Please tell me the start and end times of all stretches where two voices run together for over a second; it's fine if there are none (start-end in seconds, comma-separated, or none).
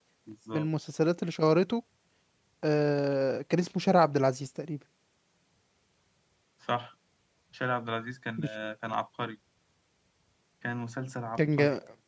none